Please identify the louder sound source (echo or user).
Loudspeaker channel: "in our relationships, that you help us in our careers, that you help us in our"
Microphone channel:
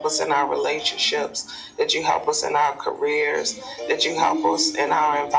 echo